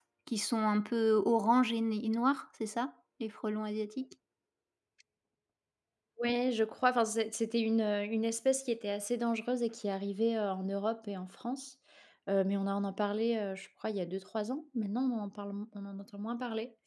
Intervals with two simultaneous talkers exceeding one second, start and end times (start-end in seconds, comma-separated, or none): none